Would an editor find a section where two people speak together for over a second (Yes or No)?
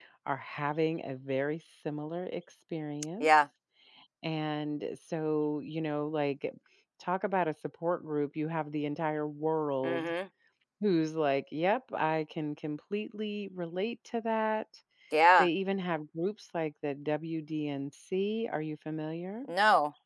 No